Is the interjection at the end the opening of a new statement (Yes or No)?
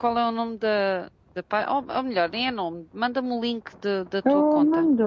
Yes